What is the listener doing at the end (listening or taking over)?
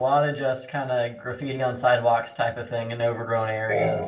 listening